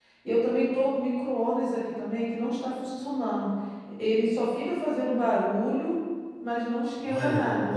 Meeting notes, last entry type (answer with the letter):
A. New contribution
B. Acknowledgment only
A